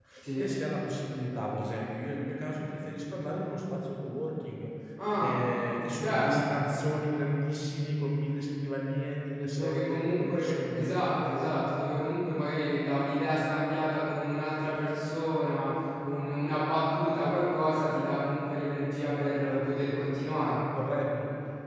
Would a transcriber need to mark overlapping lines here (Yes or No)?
Yes